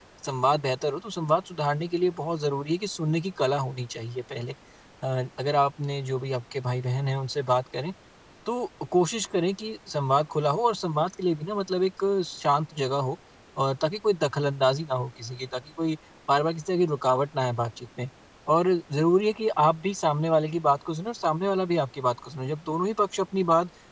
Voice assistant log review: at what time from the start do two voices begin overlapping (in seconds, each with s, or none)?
none